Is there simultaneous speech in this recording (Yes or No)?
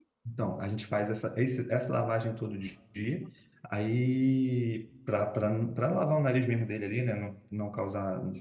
No